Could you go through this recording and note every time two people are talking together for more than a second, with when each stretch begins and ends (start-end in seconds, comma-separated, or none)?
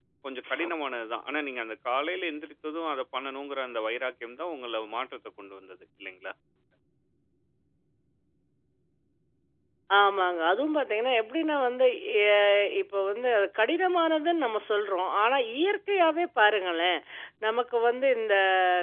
none